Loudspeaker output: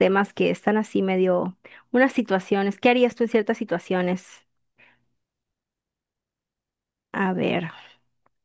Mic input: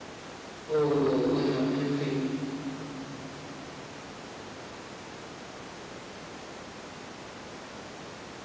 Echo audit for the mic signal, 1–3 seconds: user only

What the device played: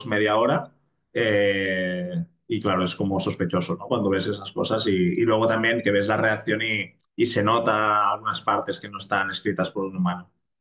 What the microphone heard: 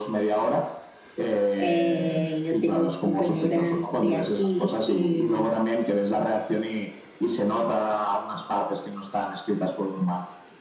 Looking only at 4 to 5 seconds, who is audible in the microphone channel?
both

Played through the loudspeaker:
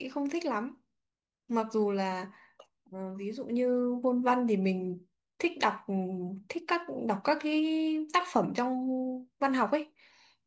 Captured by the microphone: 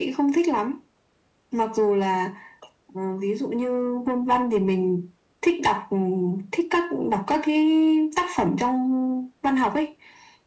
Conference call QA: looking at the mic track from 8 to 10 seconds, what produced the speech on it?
echo only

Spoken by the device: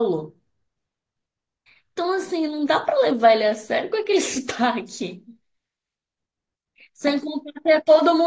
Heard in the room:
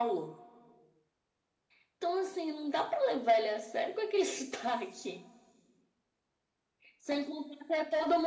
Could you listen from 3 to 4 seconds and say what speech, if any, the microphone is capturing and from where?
echo only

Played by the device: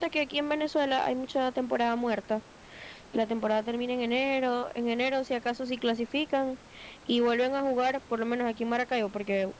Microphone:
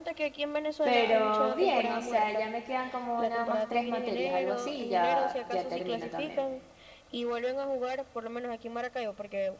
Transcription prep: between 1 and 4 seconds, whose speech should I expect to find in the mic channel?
both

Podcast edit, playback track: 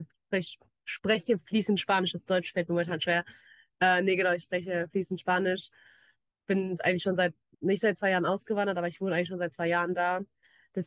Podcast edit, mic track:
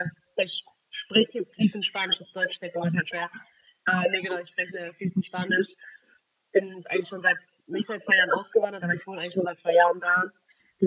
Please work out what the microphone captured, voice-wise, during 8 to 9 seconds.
echo only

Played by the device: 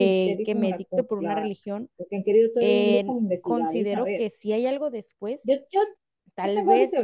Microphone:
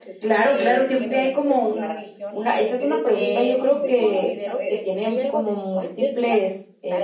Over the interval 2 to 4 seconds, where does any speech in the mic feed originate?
both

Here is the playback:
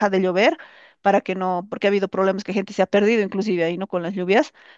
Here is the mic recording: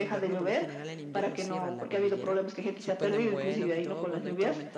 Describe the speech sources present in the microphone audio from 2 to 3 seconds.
both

